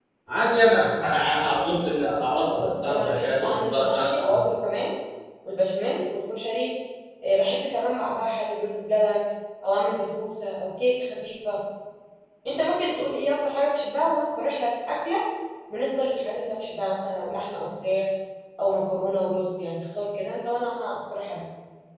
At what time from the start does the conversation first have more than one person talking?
3 s

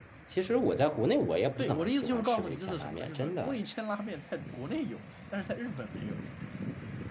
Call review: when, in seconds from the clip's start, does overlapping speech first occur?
2 s

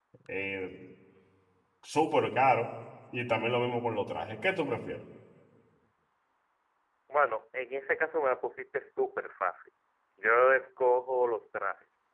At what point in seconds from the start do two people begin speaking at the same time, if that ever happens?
none

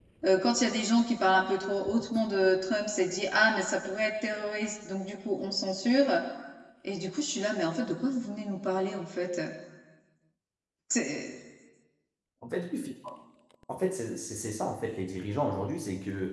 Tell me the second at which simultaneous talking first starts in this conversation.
none

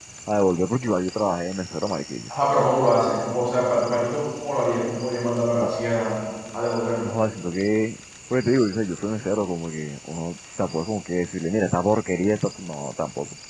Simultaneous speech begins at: none

